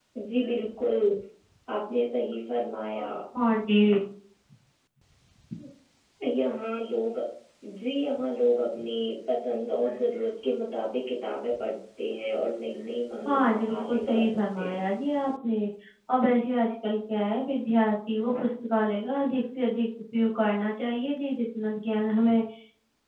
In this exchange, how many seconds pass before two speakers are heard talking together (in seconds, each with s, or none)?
13.2 s